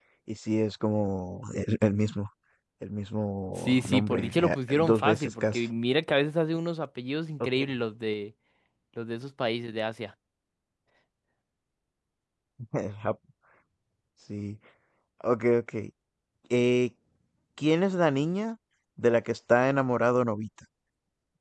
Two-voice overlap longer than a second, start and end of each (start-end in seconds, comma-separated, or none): 3.6-5.6